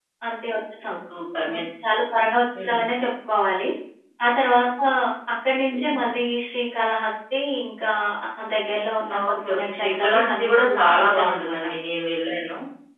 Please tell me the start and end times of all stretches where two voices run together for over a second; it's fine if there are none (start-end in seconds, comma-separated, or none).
9.3-11.6